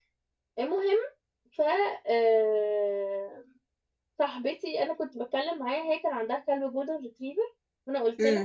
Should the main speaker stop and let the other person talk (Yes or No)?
No